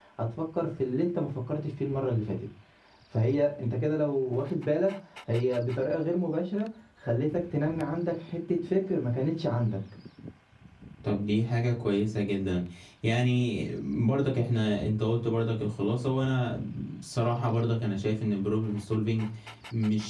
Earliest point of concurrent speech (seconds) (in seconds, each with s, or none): none